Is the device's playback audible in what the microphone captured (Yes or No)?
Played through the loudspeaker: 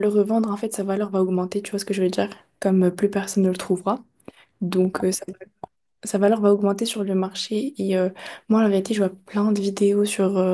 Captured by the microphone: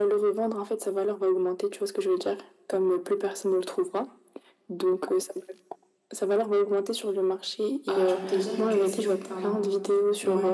Yes